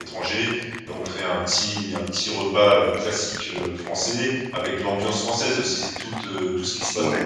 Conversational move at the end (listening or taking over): listening